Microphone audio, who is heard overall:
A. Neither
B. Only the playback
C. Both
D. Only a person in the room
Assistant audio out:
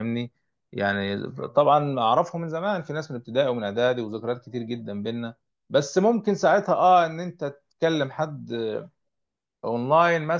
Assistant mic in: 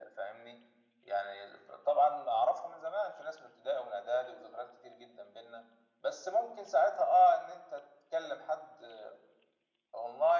B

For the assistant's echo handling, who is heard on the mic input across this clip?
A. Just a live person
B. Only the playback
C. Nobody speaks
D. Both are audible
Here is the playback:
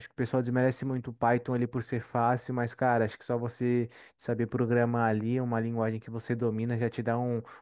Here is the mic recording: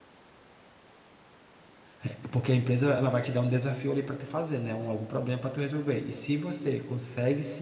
A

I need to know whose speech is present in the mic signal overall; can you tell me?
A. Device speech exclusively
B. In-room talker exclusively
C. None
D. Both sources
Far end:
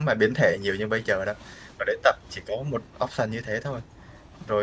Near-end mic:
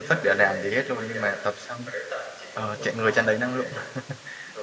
D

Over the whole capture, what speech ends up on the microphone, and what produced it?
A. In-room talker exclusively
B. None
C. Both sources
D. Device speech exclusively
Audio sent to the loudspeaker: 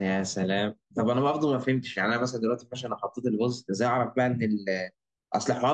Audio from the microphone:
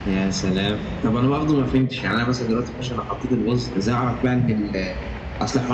D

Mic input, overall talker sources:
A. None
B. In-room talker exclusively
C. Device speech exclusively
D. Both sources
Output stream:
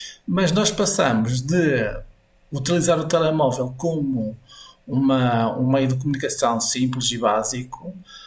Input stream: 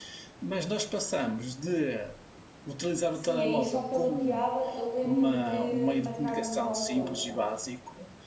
D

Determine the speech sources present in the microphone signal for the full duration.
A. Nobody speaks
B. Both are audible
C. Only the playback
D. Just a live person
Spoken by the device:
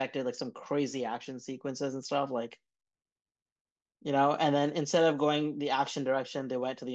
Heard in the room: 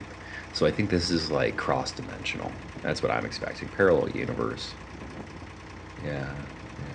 D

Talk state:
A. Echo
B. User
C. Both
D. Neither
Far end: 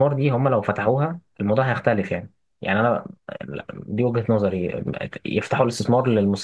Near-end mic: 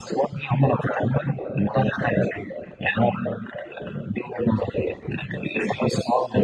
A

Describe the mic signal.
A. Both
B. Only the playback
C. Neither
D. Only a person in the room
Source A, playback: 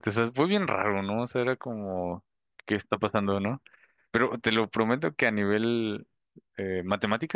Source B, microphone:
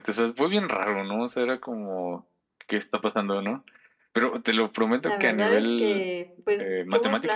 A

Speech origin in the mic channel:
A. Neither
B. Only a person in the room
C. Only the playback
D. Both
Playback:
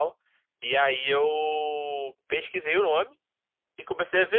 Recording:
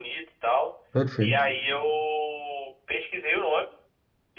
D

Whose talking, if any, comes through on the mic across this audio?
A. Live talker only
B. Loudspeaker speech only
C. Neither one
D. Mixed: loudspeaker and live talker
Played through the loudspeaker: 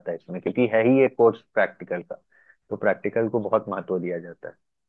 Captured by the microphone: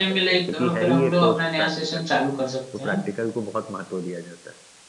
D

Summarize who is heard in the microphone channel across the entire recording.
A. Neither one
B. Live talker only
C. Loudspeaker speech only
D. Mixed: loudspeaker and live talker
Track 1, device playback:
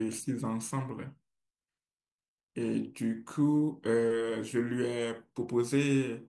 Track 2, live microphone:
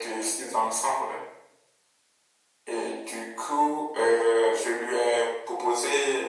C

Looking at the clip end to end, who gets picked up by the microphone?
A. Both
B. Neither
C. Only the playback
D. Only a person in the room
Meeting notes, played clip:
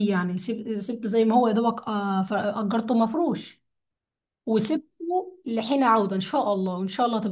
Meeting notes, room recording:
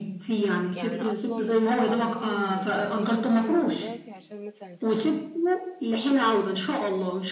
A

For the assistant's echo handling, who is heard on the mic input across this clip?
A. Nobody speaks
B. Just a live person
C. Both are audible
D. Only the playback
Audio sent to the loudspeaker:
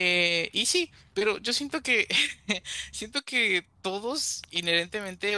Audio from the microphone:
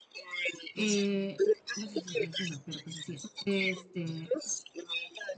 C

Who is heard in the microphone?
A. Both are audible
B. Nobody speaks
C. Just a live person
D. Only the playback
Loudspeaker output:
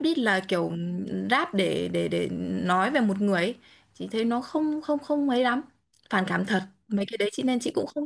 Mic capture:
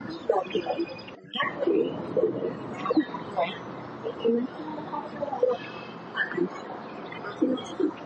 D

